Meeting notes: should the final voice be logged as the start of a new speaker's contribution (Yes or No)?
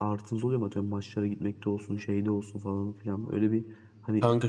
No